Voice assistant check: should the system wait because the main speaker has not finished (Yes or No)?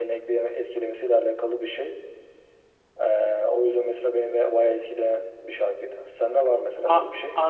No